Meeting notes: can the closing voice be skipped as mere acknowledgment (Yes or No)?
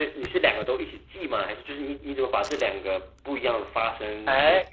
No